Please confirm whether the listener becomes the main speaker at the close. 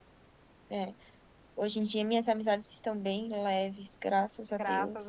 Yes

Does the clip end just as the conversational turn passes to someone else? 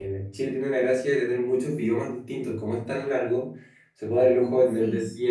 No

